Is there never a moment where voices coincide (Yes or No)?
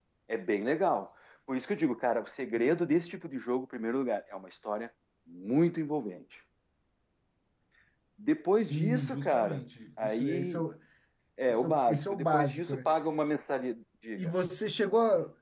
No